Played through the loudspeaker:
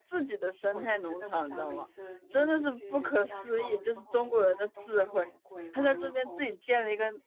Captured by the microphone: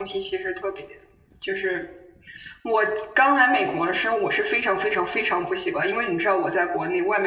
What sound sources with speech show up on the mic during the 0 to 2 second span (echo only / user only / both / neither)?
user only